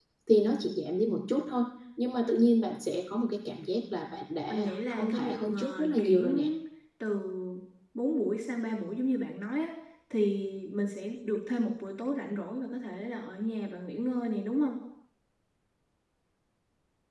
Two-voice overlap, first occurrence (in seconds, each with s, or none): 4.5 s